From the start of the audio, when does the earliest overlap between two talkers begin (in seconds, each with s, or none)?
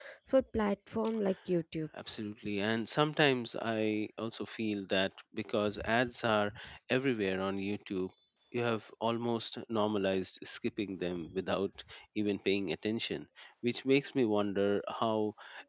none